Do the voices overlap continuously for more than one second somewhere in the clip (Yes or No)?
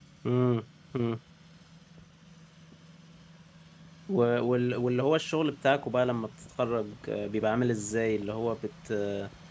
No